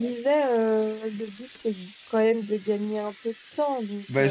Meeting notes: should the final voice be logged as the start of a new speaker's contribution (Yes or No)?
Yes